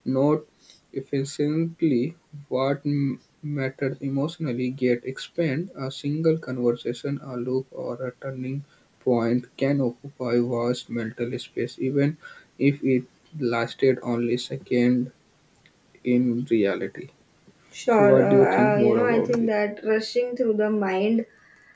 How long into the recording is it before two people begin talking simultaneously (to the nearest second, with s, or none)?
18 s